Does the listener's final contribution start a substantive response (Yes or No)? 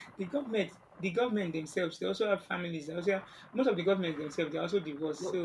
Yes